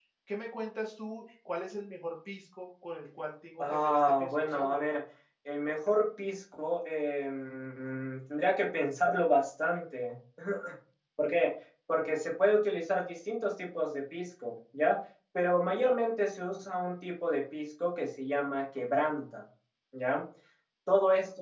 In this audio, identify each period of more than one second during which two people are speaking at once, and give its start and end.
3.6-5.0

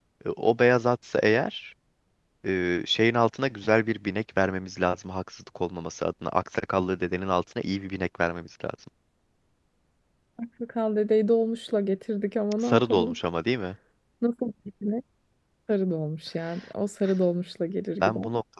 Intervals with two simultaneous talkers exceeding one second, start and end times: none

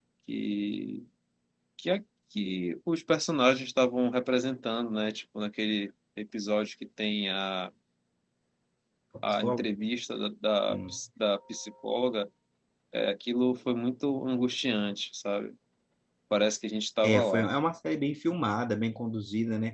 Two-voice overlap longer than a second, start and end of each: none

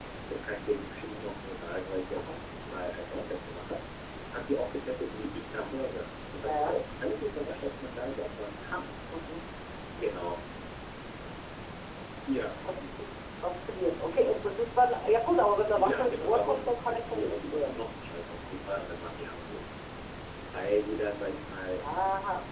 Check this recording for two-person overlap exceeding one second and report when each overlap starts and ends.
15.7-17.8

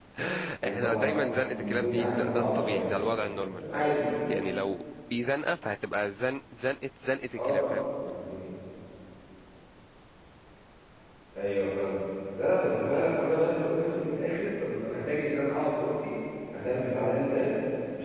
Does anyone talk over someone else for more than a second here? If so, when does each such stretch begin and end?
1.6-2.9

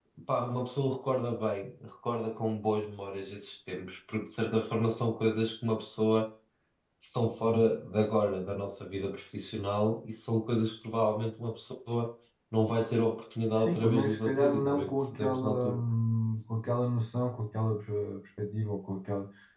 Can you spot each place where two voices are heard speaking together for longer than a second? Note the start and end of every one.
13.6-15.8

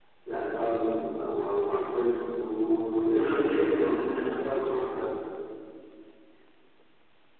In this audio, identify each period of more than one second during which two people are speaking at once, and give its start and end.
3.1-4.7

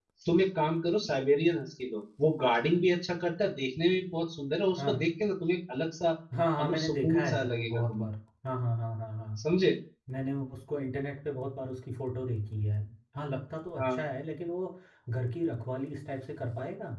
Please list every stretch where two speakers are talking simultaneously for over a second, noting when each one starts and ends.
6.6-8.1

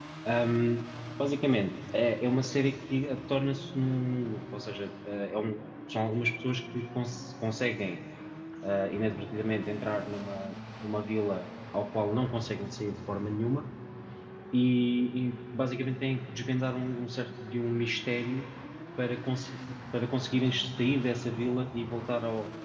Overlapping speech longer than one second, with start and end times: none

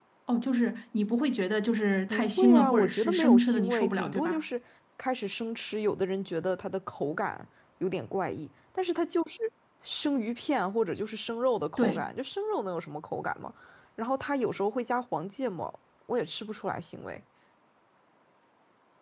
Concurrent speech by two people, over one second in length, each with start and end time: 2.1-4.4

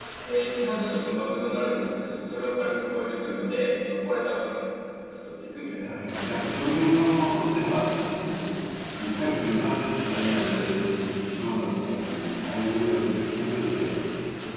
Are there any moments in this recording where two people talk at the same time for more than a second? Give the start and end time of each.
none

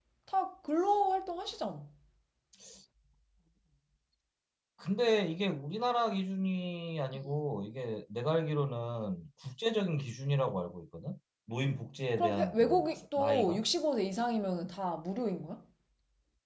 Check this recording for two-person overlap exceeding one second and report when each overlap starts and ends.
12.2-13.7

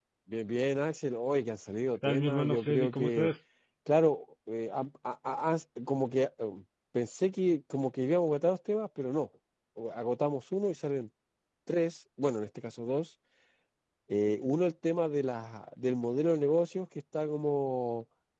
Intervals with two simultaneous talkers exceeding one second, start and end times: 2.0-3.3

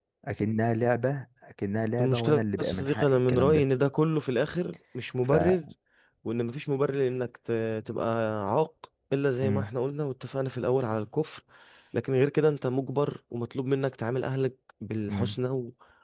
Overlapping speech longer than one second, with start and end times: 2.0-3.6

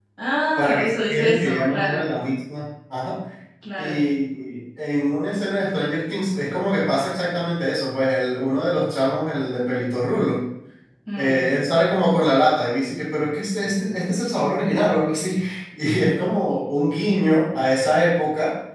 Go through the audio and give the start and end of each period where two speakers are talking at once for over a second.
0.6-2.0

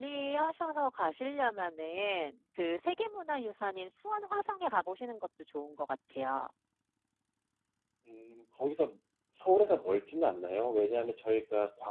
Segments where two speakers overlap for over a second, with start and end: none

